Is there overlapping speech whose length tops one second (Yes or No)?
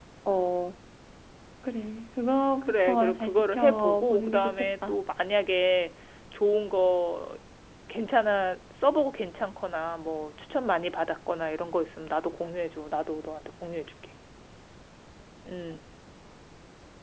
Yes